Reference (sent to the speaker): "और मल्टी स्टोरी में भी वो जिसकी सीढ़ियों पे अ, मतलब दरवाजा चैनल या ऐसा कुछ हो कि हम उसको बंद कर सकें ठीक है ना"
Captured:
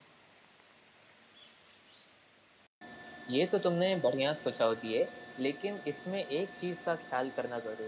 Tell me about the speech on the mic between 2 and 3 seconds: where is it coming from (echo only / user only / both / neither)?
neither